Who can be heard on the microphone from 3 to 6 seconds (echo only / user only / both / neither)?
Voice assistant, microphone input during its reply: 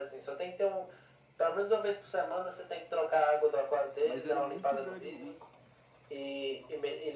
both